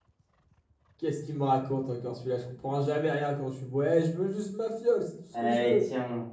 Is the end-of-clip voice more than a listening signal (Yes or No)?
Yes